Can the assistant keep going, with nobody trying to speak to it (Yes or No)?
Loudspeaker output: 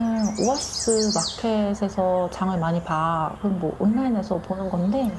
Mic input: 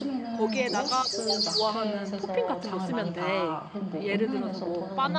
No